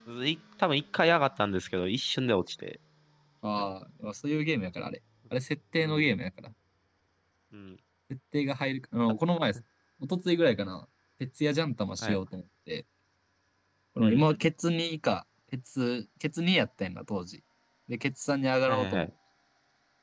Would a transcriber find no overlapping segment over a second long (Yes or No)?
Yes